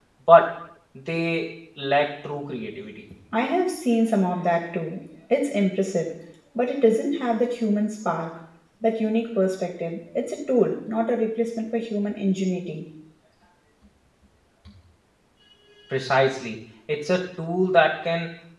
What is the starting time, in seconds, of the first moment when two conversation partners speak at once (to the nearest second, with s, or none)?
none